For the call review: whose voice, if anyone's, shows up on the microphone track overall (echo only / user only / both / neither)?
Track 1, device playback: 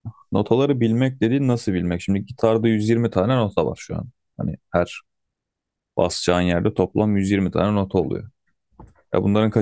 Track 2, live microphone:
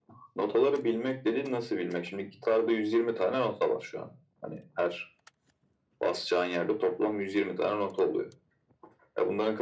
echo only